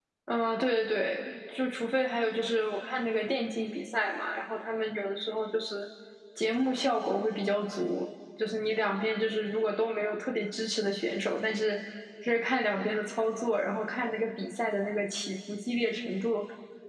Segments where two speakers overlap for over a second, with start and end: none

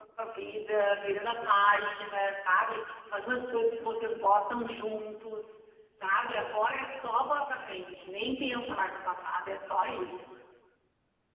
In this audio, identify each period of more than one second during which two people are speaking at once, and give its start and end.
none

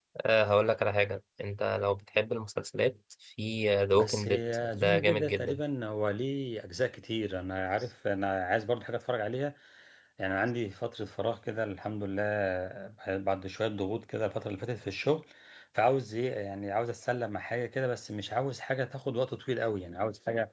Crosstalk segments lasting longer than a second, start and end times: 4.0-5.6

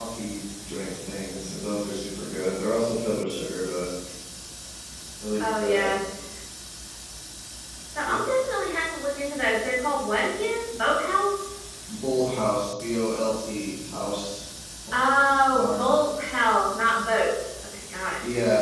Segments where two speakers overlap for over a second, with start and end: none

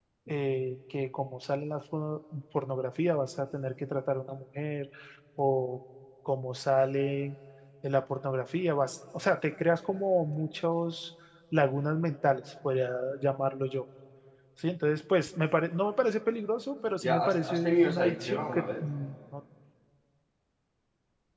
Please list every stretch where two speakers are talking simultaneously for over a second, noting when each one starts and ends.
17.0-18.8

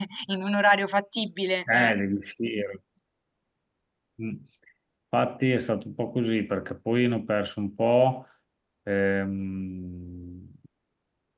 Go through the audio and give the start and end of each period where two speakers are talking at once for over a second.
none

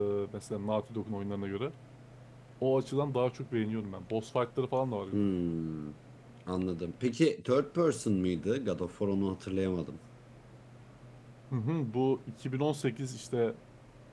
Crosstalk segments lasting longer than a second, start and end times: none

